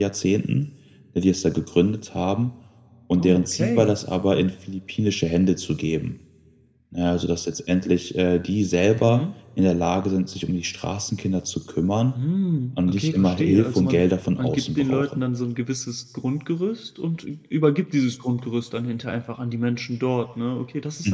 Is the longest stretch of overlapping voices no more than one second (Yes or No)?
No